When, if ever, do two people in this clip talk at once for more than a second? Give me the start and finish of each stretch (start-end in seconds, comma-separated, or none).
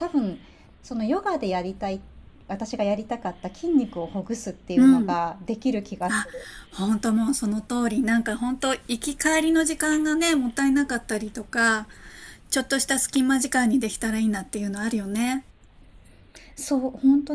none